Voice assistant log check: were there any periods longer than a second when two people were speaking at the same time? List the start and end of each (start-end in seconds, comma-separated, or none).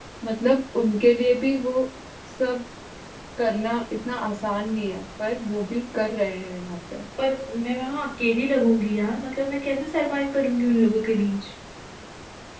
none